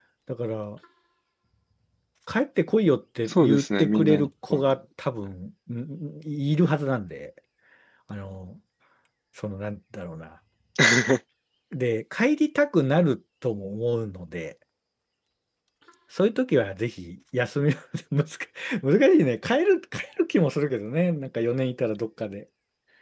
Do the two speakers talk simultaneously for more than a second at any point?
Yes, from 3.3 s

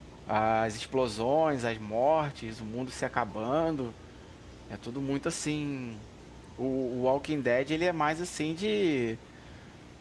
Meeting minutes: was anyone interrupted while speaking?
No

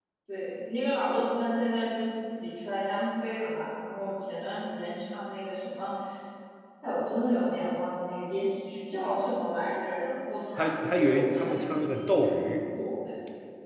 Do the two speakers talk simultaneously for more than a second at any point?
Yes, from 10.6 s

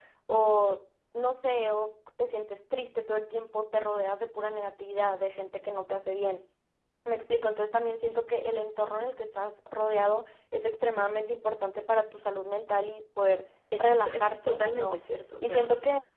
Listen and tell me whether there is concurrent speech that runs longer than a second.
Yes, from 13.8 s

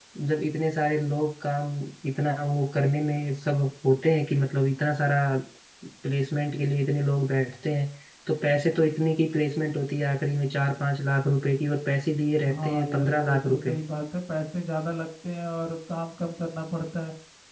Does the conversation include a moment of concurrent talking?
Yes, from 12.5 s

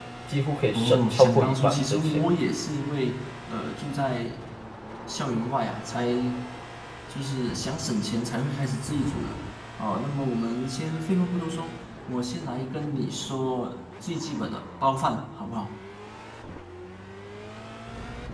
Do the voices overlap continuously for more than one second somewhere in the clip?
Yes, from 0.7 s

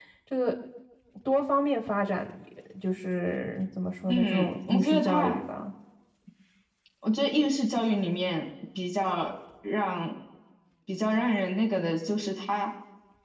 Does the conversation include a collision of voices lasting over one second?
Yes, from 4.1 s

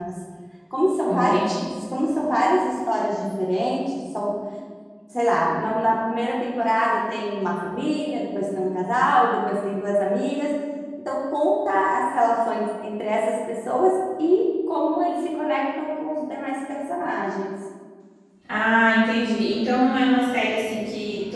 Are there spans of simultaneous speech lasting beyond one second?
No

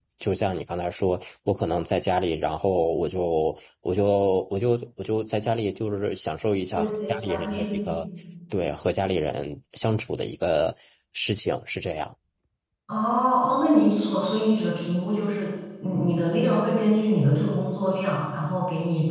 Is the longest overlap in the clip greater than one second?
Yes, from 6.8 s

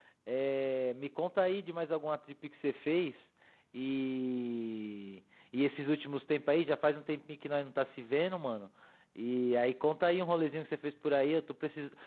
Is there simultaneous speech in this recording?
No

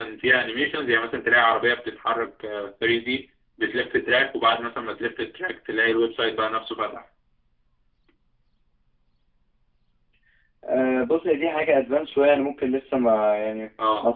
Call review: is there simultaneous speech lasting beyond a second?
No

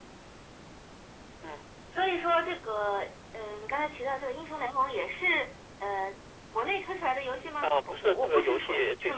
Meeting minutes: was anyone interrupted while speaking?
Yes, from 7.6 s

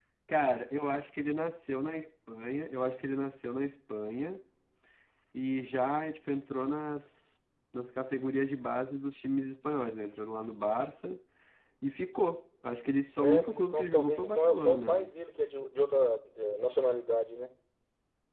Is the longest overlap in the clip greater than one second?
Yes, from 13.2 s

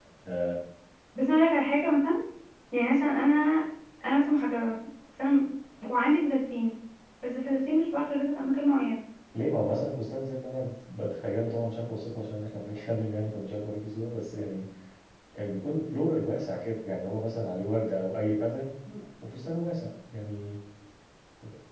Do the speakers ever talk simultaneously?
No

